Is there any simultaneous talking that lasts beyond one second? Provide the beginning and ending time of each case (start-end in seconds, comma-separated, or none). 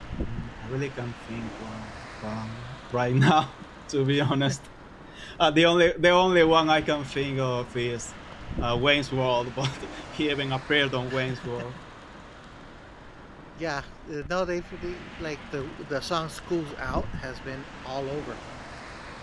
none